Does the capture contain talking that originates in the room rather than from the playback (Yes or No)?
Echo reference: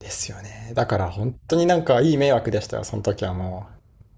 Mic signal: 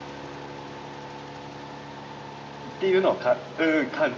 Yes